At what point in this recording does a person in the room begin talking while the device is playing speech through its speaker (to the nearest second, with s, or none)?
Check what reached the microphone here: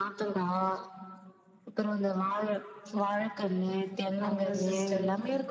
4 s